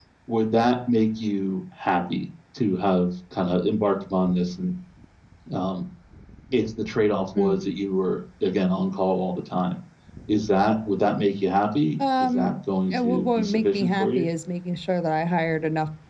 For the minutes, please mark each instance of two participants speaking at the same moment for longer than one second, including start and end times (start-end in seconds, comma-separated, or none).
12.9-14.3